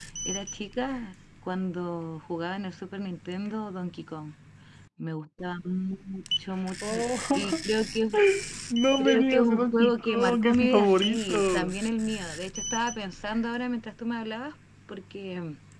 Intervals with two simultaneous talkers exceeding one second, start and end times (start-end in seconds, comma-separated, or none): 9.0-11.7